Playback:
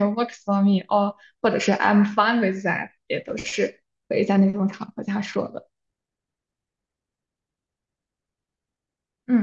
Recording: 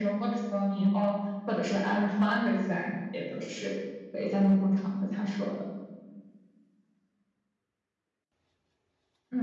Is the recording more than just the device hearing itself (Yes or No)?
No